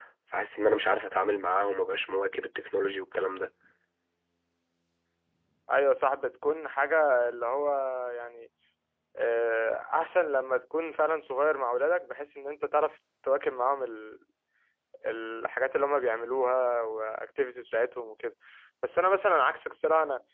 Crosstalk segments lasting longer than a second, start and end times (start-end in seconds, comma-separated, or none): none